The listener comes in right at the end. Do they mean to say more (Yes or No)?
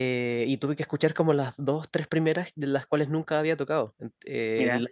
No